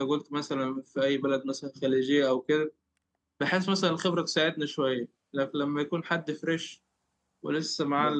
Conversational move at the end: taking over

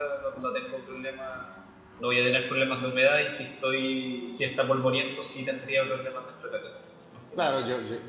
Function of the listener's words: taking over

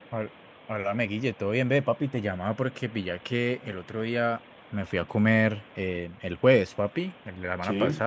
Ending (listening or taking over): listening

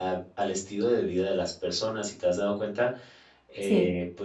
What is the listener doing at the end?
listening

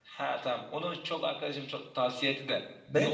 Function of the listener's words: taking over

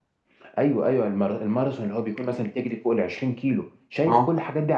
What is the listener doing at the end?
listening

